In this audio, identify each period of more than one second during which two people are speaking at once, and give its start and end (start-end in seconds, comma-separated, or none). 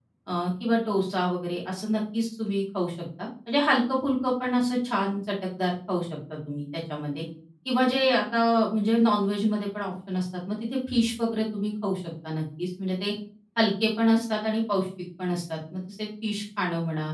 none